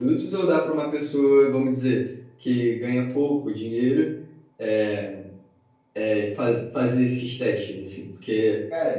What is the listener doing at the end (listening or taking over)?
listening